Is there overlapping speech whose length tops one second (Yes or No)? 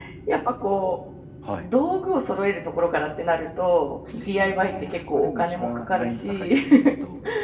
Yes